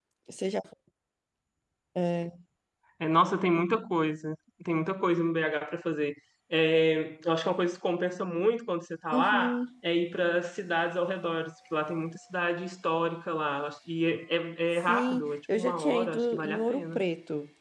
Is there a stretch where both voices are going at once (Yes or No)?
Yes